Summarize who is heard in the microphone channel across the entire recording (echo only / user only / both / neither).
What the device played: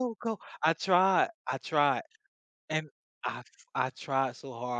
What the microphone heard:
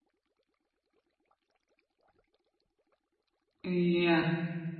user only